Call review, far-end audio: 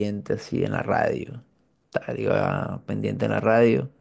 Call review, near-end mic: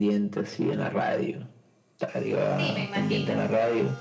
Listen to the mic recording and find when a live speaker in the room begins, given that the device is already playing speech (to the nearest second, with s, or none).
2 s